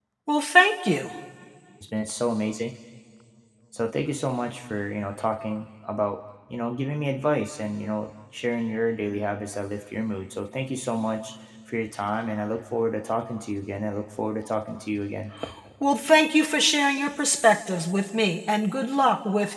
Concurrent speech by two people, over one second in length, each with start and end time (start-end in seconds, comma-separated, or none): none